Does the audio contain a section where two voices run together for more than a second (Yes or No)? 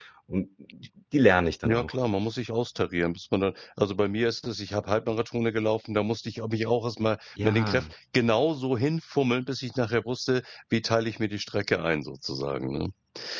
No